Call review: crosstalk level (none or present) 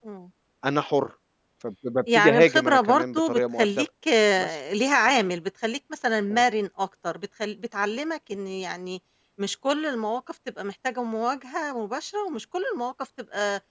present